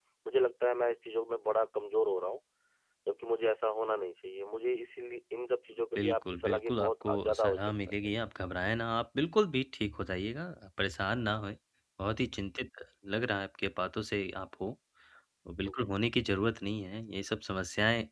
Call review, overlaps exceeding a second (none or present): present